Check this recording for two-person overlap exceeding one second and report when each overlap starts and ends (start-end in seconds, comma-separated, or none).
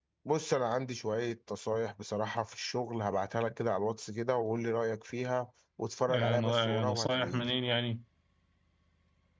6.1-7.5